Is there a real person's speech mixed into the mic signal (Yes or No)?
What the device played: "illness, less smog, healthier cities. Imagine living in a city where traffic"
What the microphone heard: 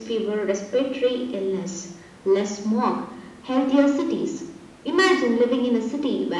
No